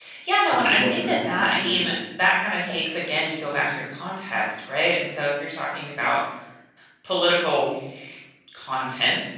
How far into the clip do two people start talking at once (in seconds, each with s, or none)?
0.5 s